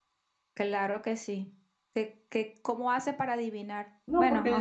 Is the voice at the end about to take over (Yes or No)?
Yes